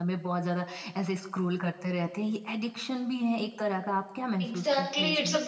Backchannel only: No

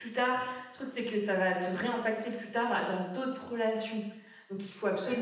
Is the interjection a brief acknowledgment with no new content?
Yes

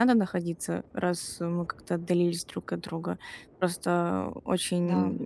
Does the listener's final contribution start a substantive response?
No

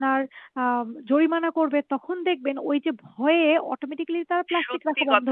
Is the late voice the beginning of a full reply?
Yes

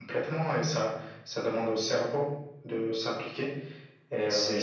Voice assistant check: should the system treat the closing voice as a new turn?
No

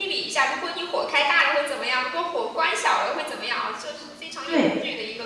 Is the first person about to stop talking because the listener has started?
Yes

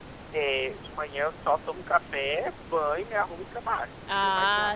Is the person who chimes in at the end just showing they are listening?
No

